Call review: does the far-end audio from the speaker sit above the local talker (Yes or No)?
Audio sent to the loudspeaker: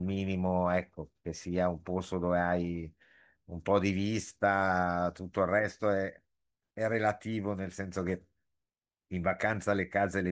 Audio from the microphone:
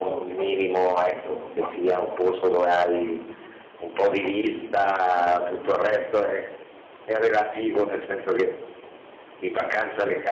Yes